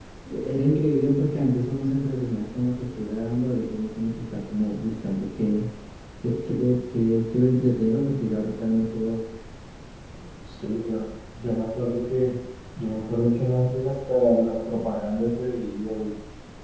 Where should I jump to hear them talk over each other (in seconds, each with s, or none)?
none